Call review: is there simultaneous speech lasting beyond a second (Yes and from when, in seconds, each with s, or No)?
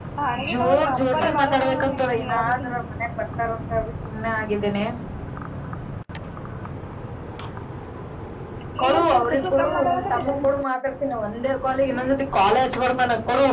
Yes, from 0.5 s